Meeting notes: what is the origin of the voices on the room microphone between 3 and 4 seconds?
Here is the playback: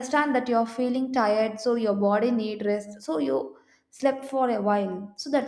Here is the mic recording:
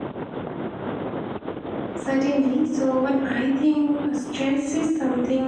user only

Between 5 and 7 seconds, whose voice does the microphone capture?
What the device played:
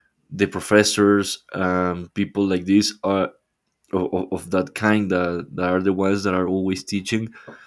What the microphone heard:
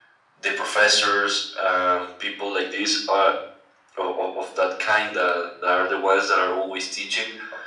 echo only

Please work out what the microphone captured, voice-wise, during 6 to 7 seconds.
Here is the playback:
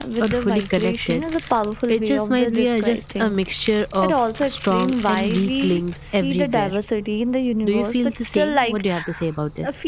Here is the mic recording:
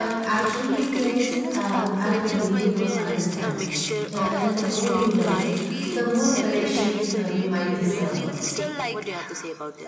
both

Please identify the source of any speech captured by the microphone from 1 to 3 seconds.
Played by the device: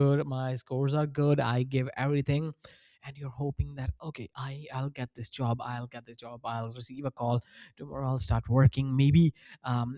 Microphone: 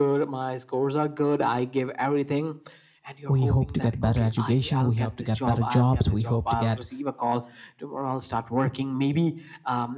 echo only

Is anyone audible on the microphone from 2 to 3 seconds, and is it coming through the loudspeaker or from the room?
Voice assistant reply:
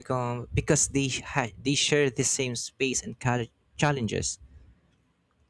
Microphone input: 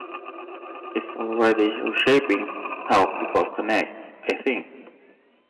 user only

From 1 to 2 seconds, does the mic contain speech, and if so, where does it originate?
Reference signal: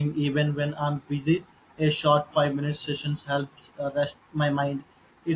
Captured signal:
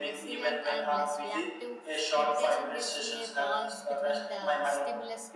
both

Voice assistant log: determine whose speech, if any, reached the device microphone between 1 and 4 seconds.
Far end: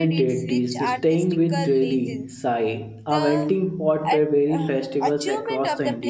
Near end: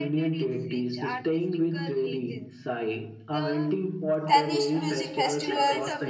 echo only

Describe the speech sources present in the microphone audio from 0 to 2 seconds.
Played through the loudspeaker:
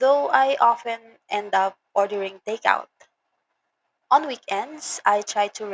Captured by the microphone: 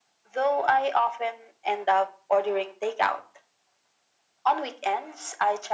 echo only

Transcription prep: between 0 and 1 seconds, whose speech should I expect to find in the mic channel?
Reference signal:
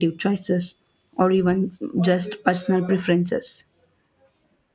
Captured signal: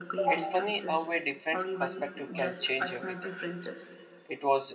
both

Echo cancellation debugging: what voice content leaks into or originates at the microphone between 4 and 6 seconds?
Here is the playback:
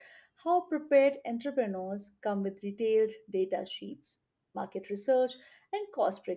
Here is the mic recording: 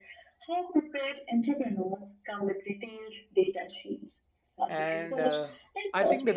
both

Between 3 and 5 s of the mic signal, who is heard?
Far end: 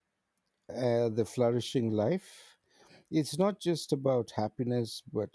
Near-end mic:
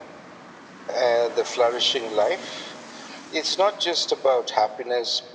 echo only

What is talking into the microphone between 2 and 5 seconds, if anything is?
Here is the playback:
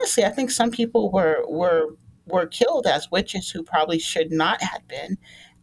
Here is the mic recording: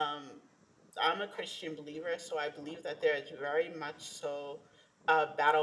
user only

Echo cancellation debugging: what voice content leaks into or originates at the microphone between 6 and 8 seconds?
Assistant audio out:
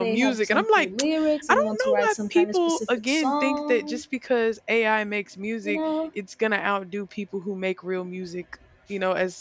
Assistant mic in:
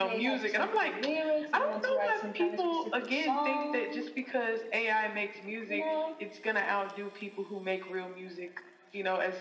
echo only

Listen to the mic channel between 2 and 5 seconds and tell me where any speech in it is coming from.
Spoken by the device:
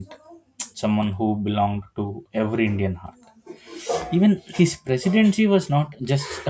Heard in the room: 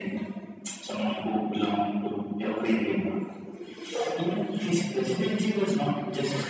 echo only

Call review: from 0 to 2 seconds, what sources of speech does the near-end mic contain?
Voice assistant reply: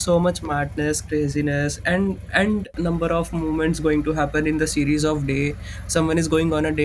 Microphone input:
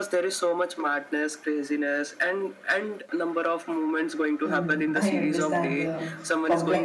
echo only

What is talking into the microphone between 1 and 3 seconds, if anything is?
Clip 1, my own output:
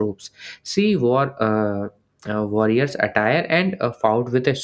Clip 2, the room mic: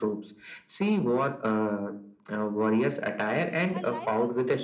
echo only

